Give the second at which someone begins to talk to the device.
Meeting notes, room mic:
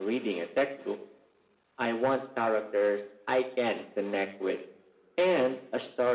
none

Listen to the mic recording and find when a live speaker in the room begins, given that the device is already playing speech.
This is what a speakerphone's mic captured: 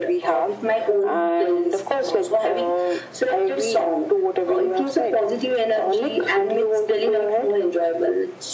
none

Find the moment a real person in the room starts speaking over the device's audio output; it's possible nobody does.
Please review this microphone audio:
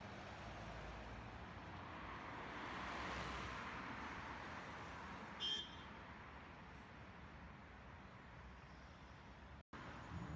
none

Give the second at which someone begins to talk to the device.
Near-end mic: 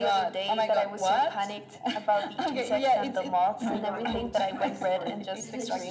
4 s

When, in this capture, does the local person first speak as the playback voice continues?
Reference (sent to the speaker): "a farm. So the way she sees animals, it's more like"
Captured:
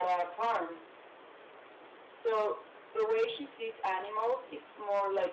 none

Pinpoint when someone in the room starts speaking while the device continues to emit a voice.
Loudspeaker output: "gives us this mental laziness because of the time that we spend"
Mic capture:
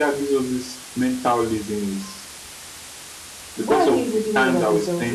4 s

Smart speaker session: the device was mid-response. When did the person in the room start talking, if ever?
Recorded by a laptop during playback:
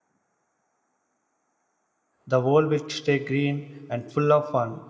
2 s

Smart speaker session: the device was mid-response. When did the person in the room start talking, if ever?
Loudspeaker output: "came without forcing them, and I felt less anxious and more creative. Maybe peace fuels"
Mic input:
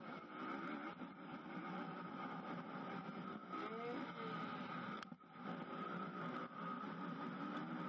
none

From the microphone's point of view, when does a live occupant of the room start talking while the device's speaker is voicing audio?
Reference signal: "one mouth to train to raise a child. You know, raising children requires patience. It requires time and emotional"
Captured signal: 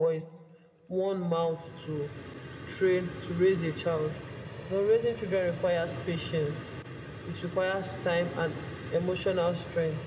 none

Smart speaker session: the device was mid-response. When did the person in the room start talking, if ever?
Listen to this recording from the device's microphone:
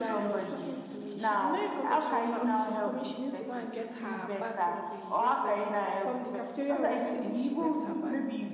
none

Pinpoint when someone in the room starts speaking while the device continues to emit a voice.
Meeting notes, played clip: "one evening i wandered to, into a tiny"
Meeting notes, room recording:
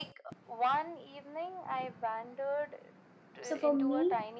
3 s

